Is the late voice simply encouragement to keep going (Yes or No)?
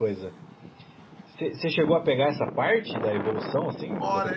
No